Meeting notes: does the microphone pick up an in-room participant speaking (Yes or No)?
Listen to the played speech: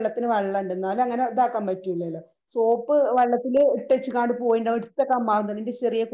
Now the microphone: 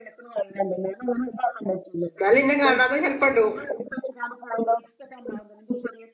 Yes